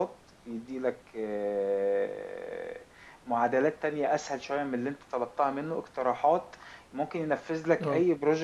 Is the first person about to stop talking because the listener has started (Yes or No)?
No